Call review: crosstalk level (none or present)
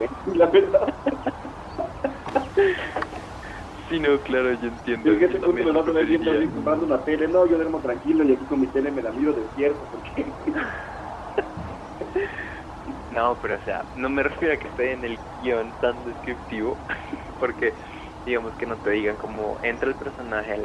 present